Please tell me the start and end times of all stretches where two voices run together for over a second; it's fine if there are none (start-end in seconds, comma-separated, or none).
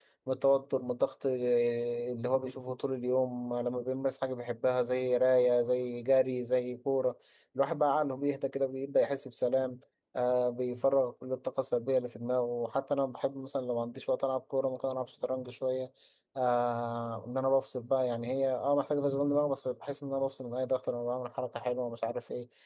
none